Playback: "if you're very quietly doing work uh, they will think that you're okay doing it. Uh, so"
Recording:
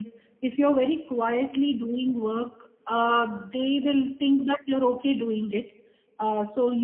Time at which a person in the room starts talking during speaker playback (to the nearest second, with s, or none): none